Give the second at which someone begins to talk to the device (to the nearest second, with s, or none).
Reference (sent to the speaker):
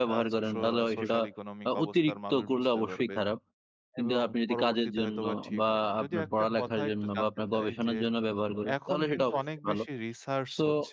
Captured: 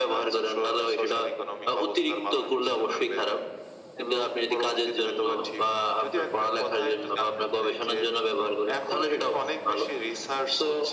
none